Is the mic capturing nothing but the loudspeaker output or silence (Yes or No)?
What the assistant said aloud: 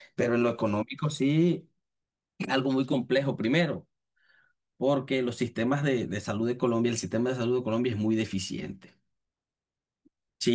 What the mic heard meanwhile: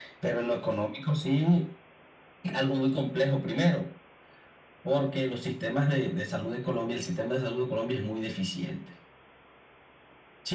Yes